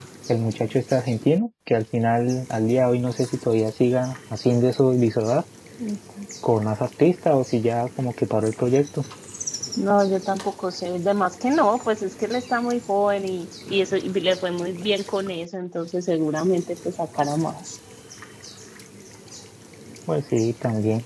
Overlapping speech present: No

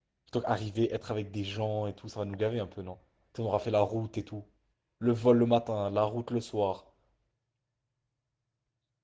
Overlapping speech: No

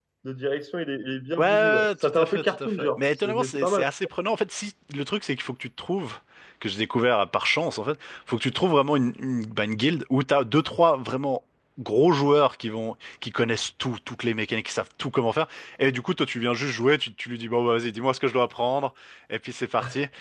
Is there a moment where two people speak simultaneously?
Yes, from 1.4 s

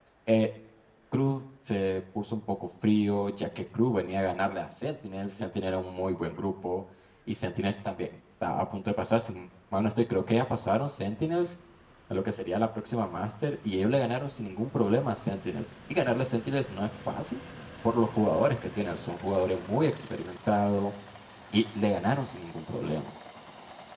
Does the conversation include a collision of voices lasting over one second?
No

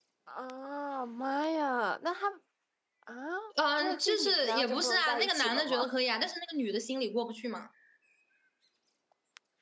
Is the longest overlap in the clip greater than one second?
Yes, from 3.8 s

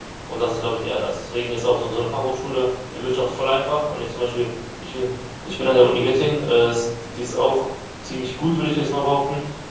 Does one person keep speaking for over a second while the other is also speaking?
No

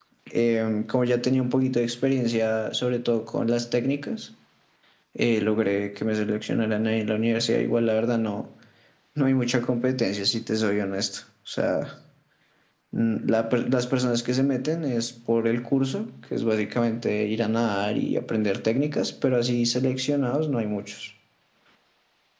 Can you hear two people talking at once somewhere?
No

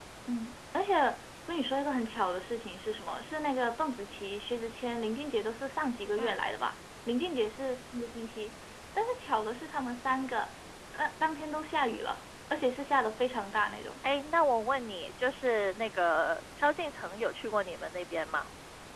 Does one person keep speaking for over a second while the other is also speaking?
No

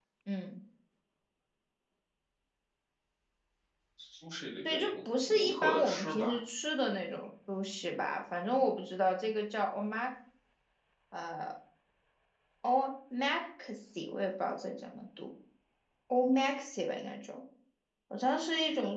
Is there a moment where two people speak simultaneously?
Yes, from 4.7 s

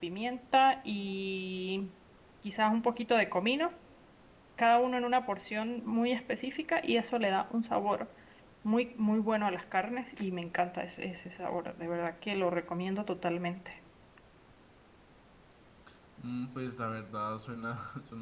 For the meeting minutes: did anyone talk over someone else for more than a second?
No

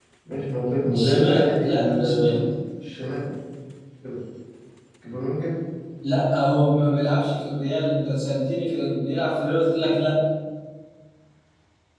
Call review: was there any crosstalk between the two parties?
Yes, from 0.9 s

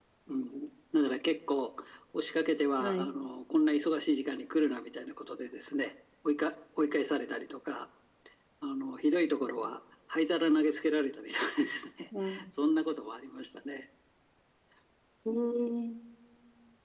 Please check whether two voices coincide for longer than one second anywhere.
No

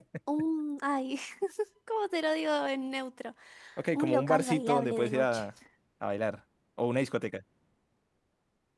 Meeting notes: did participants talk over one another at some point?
Yes, from 4.0 s

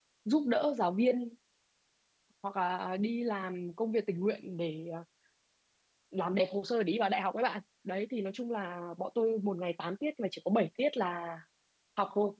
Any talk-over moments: No

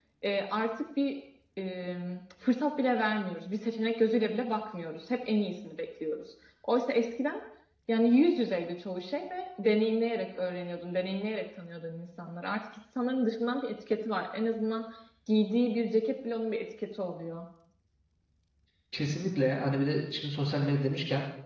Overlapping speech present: No

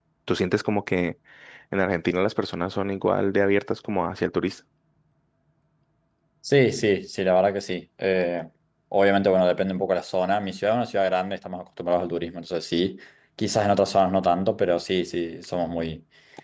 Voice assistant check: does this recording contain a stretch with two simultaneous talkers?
No

